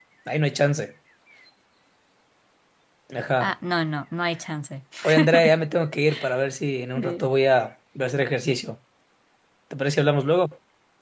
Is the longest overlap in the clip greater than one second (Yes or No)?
No